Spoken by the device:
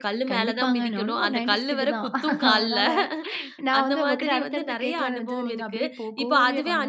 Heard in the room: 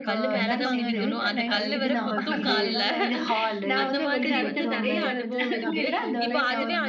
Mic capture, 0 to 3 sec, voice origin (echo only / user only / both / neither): both